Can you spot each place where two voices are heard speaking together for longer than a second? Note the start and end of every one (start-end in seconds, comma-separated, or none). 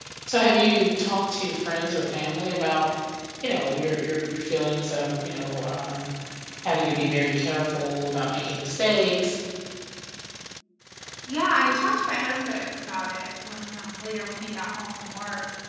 none